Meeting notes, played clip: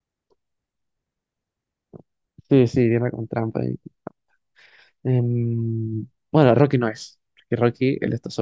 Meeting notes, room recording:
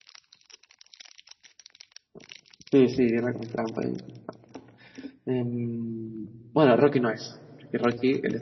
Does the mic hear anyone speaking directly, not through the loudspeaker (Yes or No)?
No